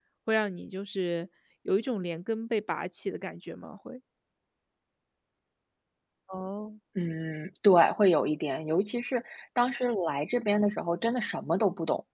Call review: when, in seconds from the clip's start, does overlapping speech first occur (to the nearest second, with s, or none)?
none